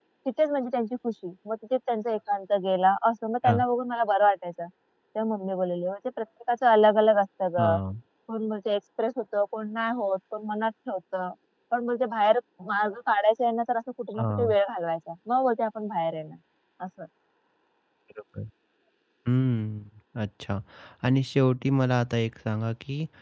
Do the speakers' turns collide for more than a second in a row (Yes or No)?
No